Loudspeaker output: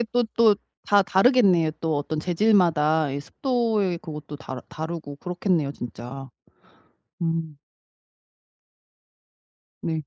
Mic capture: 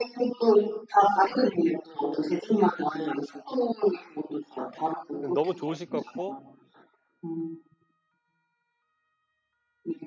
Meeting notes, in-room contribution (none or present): present